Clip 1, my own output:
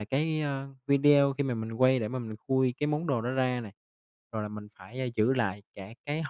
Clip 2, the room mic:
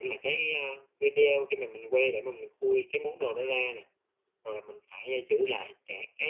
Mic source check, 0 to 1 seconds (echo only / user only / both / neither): echo only